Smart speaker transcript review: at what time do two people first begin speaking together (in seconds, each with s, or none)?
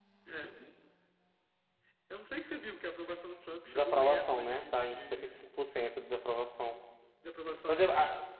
3.5 s